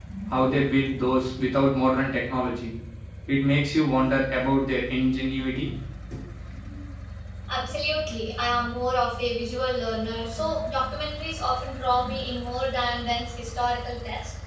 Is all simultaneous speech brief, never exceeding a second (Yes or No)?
Yes